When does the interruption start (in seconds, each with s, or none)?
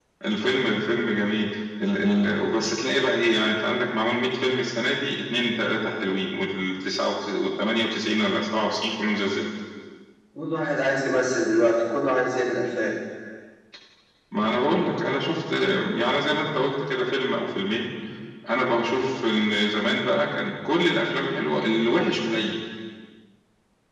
none